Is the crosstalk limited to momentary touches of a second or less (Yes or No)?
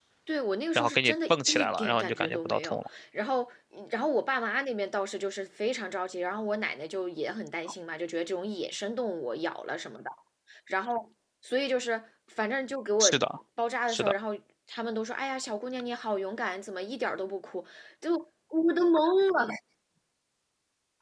No